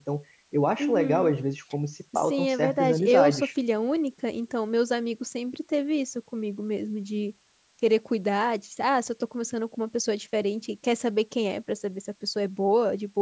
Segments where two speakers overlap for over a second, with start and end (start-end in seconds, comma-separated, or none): 2.2-3.5